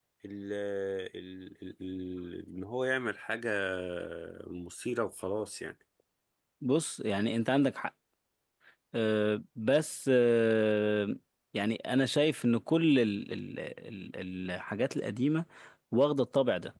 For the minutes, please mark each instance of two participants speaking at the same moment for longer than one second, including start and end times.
none

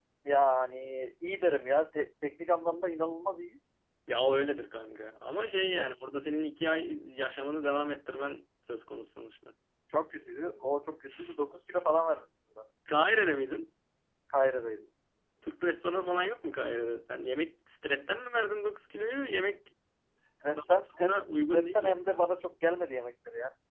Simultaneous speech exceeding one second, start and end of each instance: 20.5-22.2

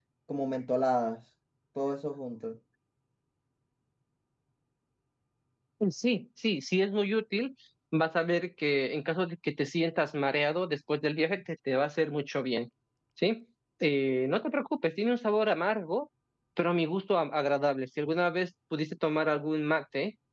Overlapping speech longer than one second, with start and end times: none

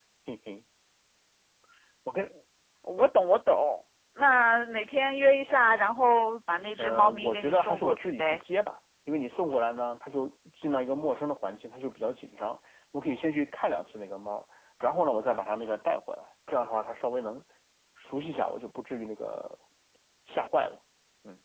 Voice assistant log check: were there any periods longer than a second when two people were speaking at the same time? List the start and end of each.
6.8-8.4

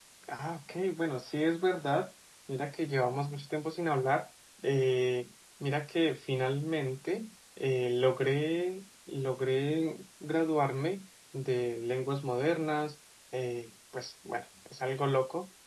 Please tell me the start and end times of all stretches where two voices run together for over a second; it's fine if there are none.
none

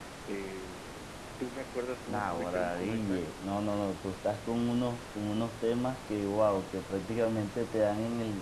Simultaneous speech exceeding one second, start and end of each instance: 2.0-3.2

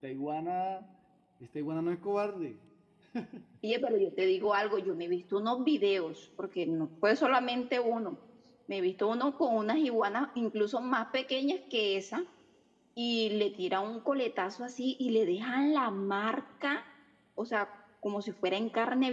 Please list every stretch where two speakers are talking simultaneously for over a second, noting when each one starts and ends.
none

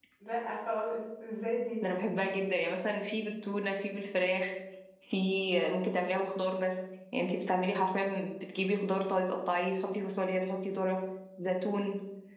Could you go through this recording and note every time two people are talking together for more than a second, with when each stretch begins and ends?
none

